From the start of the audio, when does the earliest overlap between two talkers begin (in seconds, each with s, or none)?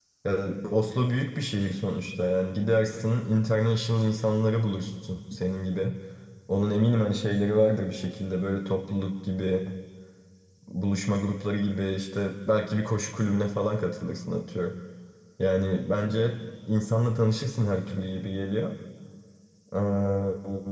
none